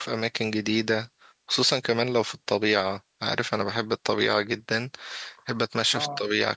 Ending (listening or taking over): listening